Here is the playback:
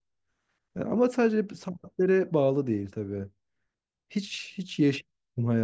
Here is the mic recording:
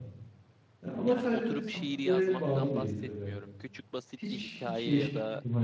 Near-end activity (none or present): present